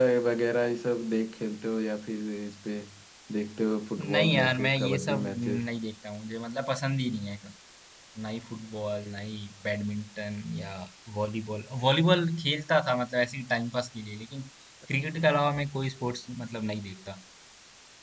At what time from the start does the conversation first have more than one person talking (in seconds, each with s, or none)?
4.1 s